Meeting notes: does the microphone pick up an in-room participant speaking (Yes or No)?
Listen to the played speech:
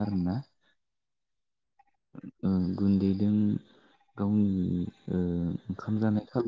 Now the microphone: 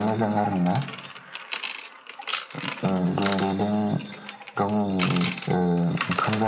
No